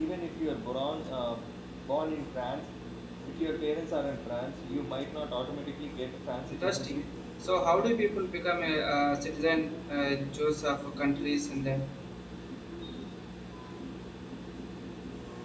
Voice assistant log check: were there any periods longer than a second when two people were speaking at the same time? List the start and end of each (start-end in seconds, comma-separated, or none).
none